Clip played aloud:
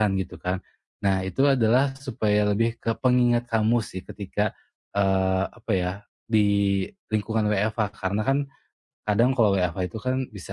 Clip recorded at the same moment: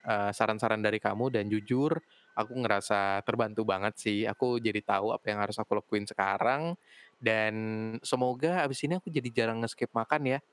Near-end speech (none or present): present